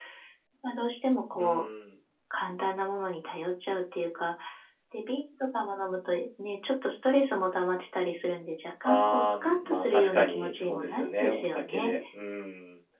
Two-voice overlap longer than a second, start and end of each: 8.8-11.9

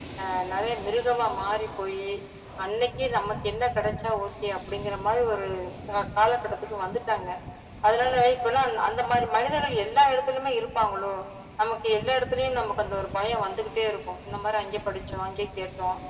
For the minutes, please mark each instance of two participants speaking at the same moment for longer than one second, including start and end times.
none

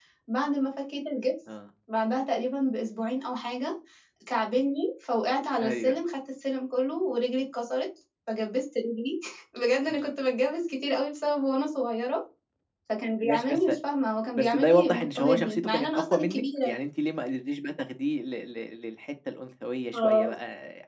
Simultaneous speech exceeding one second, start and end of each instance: 14.3-16.7

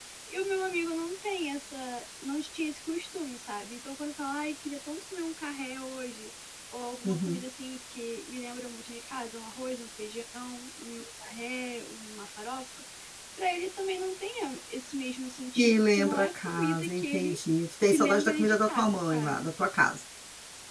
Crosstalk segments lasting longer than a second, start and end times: 15.6-17.4, 17.9-19.4

